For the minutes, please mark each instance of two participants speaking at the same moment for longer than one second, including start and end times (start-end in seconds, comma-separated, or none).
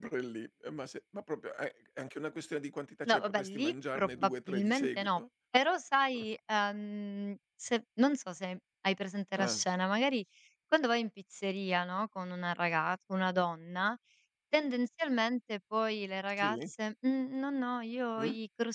3.1-5.2